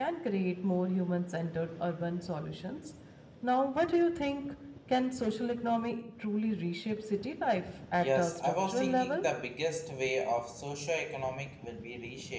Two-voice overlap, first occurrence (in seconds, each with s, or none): 8.0 s